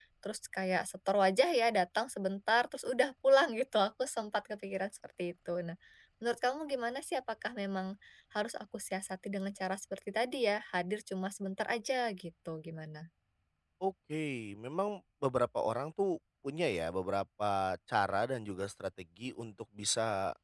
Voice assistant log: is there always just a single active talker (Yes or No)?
Yes